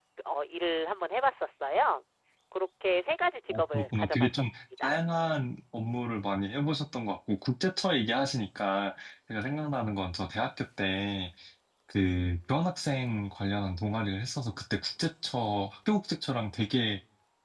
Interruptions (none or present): present